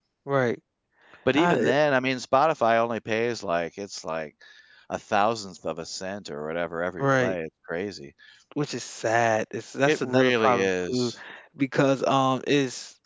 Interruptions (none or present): present